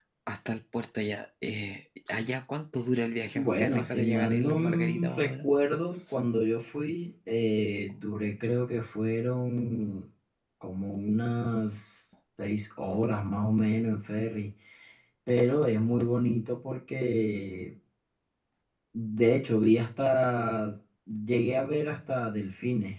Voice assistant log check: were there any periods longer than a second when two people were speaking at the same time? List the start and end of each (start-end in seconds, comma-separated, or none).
3.4-5.5